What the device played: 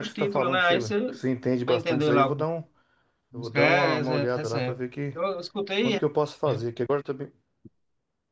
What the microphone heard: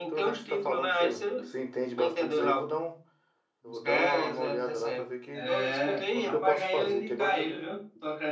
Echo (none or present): present